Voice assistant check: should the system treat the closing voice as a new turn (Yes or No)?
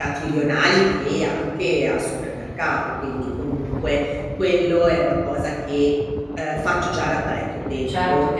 Yes